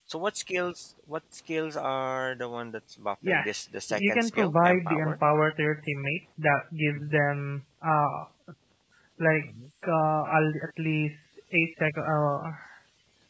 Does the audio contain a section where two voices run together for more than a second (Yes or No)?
Yes